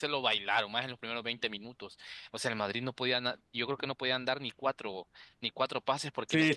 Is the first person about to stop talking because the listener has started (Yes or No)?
Yes